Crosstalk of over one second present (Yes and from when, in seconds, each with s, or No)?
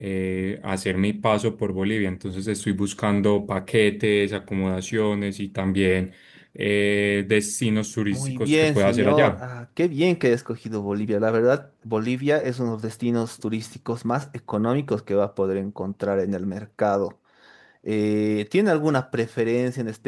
Yes, from 8.1 s